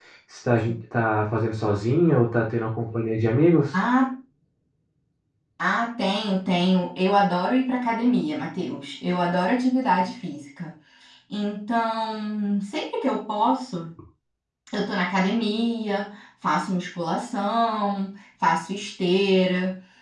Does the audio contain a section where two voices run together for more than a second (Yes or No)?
No